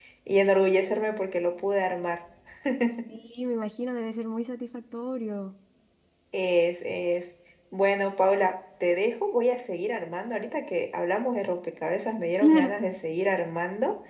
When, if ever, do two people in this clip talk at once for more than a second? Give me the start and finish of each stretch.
none

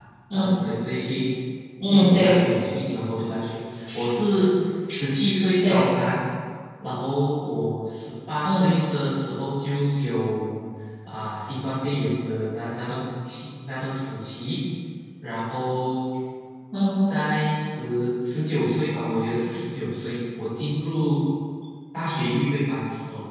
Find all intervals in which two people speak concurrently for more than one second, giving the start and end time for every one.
none

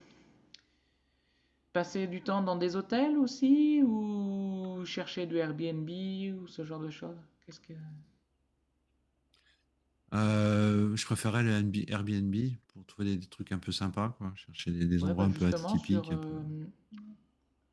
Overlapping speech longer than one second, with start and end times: 15.0-16.4

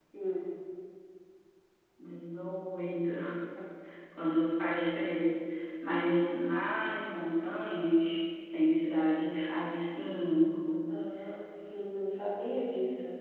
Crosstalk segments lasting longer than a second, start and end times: none

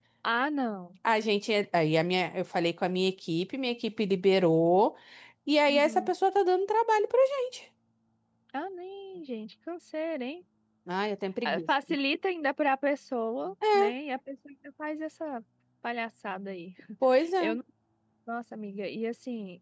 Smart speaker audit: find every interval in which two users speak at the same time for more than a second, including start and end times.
none

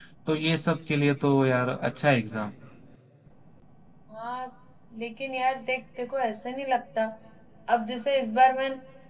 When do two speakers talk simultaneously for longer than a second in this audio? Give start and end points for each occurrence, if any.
none

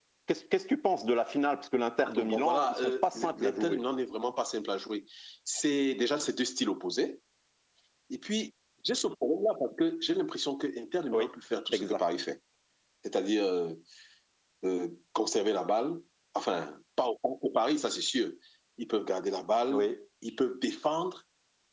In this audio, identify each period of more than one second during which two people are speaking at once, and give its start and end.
2.0-3.8

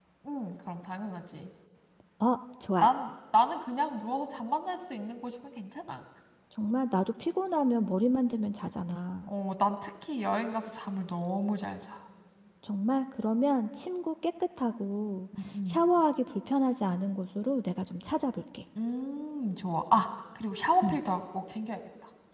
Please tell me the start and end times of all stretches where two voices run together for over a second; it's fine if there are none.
none

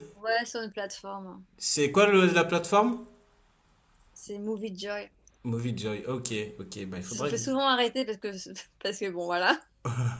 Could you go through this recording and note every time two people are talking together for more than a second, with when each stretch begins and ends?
none

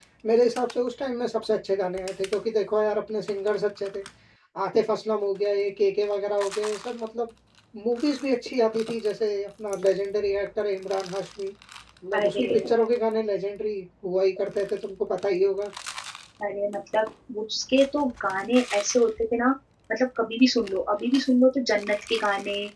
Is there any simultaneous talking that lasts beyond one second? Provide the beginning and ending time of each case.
none

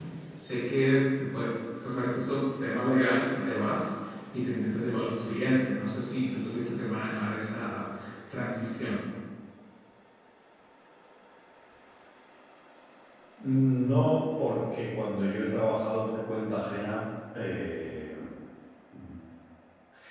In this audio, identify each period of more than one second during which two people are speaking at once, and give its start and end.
none

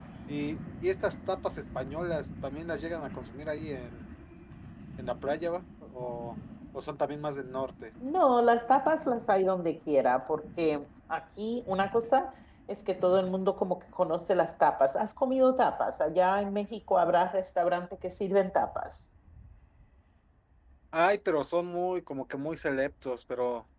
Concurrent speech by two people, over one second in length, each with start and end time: none

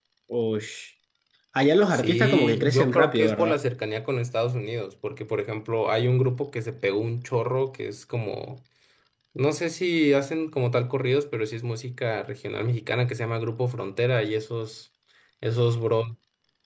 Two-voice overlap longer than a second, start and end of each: 1.9-3.6

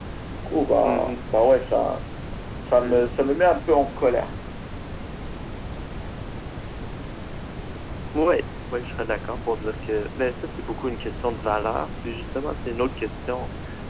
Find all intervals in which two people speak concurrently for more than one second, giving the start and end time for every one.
none

